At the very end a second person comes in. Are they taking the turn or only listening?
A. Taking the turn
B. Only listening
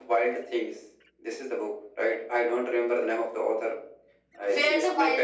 A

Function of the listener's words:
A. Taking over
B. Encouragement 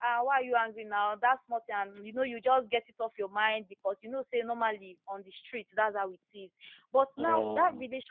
B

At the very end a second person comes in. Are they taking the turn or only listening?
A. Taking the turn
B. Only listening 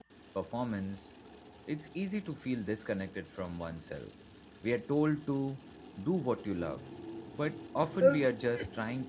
B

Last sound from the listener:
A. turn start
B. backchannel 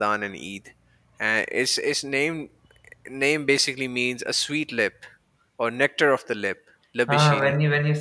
A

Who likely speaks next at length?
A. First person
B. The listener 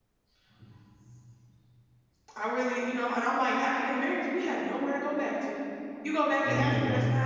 A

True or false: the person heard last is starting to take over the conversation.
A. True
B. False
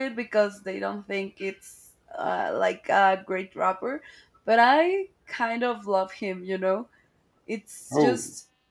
B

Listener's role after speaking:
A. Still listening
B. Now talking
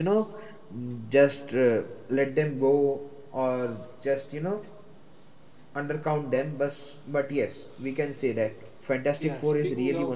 B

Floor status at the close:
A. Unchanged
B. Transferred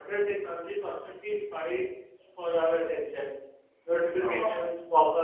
A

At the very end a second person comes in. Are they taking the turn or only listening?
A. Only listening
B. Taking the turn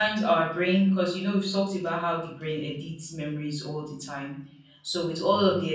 A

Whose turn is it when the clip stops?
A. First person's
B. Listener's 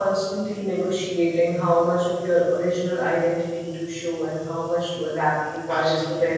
B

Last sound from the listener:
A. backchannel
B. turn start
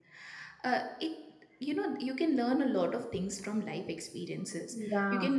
A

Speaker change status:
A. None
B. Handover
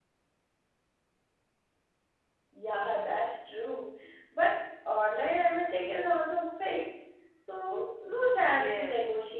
B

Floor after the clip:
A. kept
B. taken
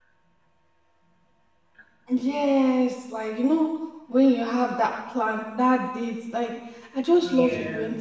A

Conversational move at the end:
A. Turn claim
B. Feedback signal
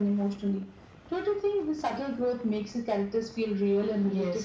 A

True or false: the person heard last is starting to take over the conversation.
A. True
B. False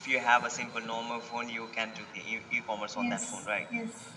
A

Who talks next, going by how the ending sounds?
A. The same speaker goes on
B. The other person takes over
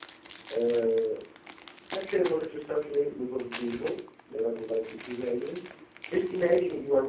A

